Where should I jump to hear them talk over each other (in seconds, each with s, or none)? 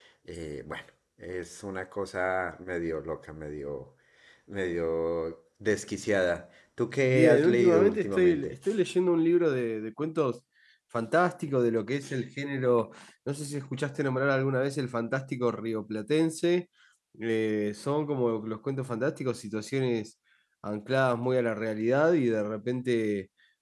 7.1 s